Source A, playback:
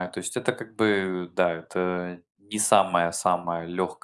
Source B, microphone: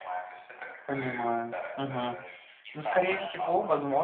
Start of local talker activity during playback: 0.8 s

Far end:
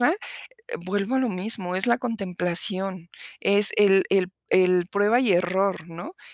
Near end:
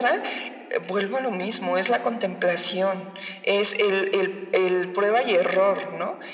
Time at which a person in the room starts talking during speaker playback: none

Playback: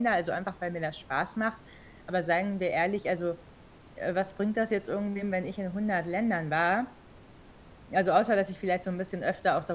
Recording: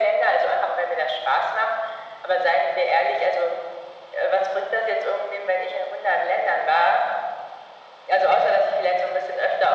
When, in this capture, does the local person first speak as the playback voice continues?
none

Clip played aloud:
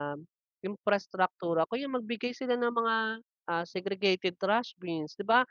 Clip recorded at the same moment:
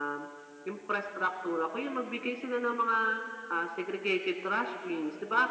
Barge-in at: none

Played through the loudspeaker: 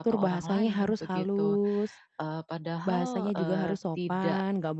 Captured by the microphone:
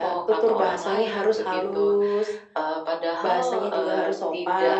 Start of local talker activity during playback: none

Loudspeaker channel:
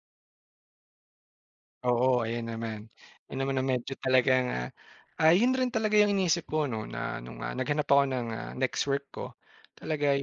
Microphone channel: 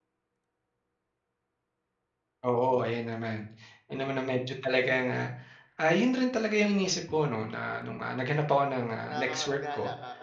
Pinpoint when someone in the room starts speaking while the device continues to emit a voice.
9.1 s

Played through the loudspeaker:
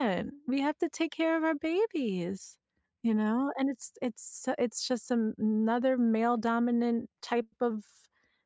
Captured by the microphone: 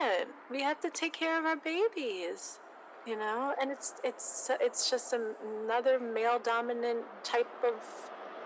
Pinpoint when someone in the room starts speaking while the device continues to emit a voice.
none

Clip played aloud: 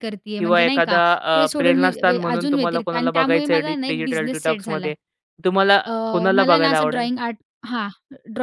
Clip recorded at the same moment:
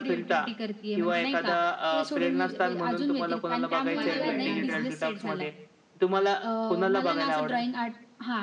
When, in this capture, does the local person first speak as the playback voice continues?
3.9 s

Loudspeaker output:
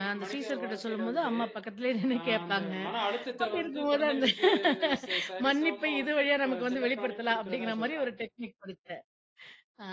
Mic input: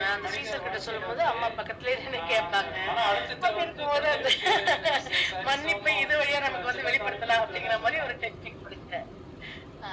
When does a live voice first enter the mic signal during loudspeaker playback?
none

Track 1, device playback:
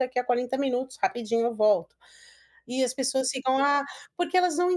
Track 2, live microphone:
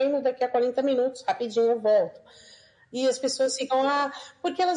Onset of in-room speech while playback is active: none

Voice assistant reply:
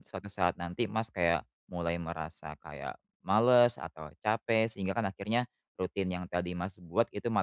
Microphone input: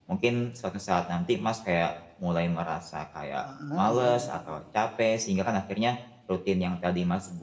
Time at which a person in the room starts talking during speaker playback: 3.4 s

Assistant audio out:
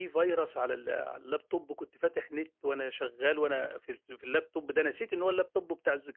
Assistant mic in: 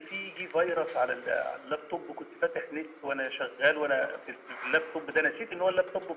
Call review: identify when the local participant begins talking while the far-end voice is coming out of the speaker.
none

